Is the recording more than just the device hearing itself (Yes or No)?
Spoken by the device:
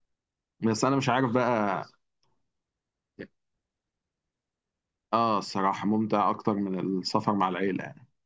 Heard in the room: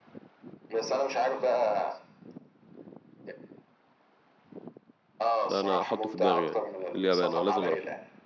Yes